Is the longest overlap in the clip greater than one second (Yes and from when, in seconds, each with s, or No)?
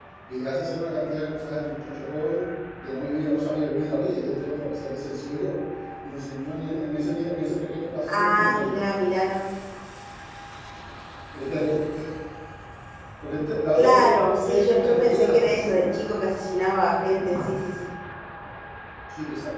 Yes, from 8.1 s